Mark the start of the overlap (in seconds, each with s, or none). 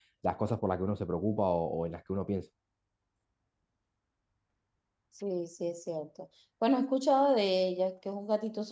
none